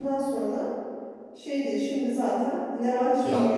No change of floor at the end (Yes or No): No